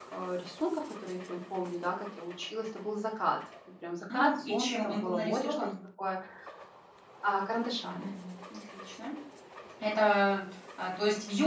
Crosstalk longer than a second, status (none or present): present